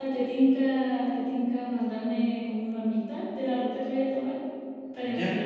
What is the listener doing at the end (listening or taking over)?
taking over